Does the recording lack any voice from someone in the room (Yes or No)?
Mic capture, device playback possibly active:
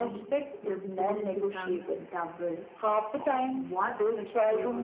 No